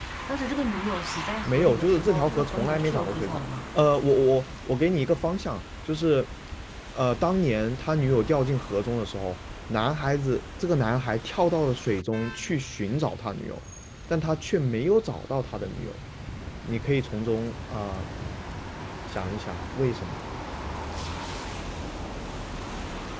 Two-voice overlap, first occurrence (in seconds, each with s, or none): 1.4 s